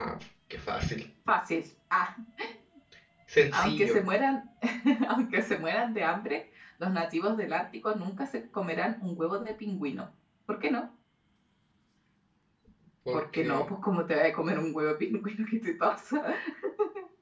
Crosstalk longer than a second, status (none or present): none